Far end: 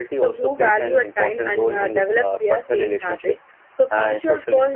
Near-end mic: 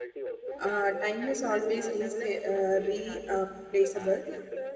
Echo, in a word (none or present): present